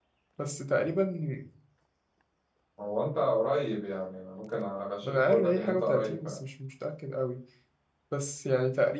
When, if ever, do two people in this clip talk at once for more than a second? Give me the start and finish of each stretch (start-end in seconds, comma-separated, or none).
5.0-6.4